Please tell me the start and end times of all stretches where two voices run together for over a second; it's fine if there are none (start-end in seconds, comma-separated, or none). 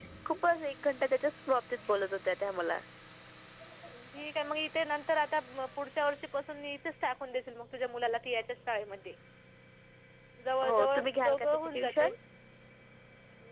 10.7-12.1